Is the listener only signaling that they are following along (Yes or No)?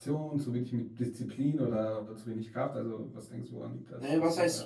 No